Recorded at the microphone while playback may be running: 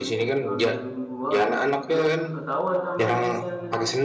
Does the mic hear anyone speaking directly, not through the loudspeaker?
Yes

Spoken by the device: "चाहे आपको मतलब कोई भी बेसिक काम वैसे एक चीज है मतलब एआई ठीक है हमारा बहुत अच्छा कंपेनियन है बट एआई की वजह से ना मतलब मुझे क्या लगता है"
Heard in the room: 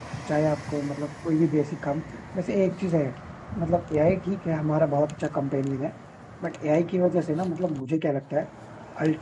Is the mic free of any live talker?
Yes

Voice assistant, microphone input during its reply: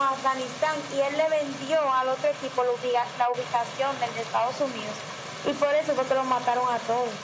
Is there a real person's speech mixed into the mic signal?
No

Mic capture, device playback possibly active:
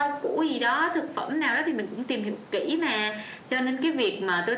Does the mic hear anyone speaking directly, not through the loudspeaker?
No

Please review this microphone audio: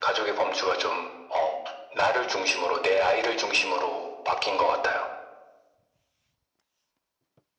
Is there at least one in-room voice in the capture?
No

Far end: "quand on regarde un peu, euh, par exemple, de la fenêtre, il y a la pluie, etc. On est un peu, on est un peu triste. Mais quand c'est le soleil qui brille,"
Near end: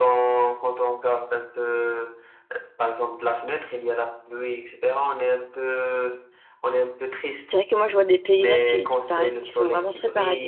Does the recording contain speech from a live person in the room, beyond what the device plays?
Yes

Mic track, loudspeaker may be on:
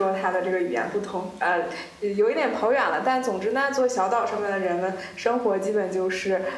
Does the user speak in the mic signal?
No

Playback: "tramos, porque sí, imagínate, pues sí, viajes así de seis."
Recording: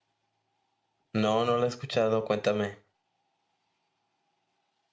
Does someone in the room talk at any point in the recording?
Yes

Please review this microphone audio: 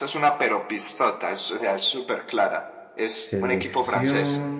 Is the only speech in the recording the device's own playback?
No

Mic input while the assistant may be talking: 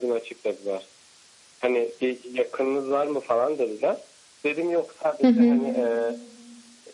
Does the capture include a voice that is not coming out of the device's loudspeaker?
Yes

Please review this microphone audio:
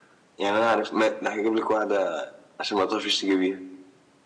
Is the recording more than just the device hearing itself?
No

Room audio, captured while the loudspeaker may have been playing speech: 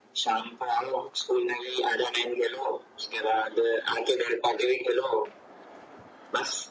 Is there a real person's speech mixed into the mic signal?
No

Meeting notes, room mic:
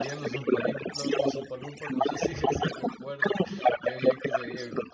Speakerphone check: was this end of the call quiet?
No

